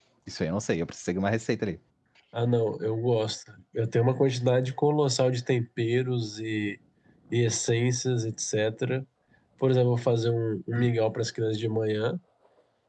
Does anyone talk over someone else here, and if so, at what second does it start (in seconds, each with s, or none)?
none